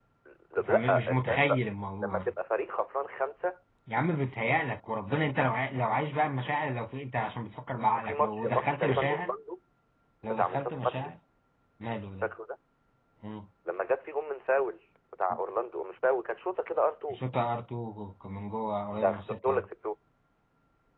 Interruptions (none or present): present